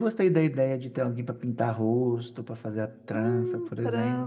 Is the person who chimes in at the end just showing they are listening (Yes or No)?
No